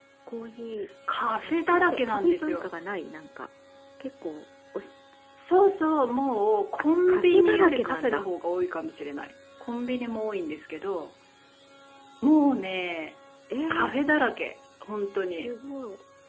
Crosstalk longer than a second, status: present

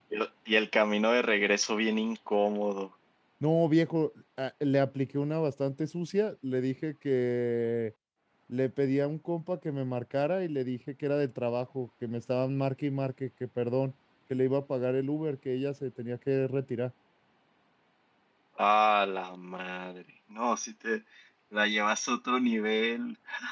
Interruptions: none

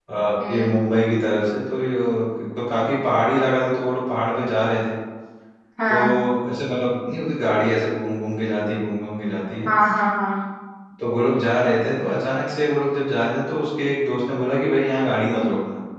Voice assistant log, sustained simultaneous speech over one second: none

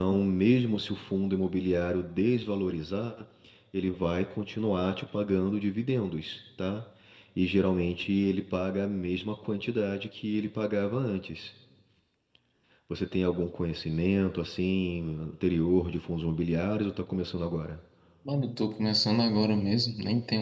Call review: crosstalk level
none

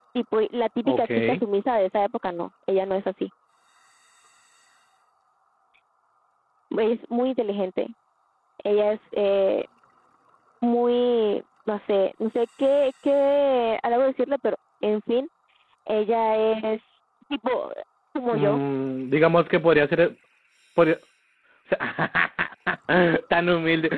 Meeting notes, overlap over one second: none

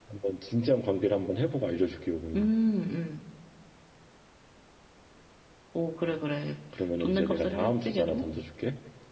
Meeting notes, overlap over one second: present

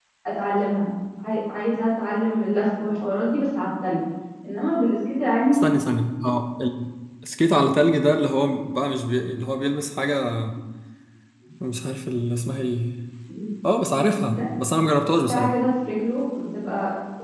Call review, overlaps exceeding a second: none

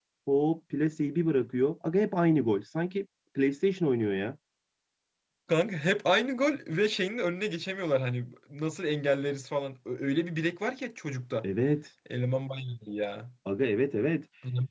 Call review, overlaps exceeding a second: none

